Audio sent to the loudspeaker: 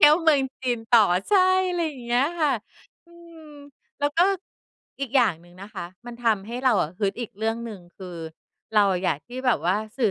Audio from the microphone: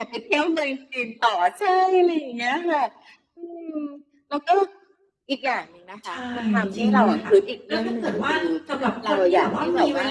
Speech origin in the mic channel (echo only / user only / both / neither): both